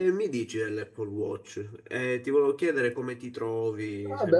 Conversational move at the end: taking over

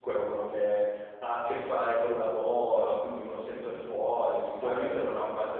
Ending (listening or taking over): listening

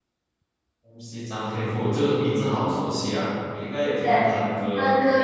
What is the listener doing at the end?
taking over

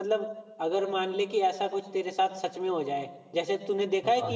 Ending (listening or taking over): listening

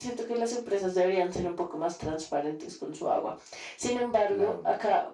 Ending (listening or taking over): listening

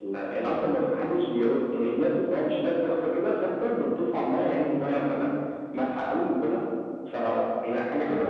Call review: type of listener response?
taking over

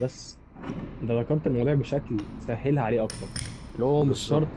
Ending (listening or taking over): listening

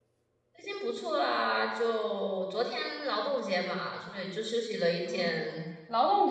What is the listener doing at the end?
taking over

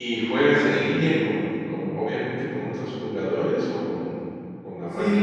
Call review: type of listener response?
taking over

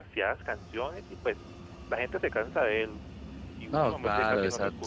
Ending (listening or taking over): taking over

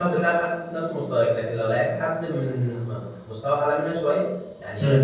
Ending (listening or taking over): listening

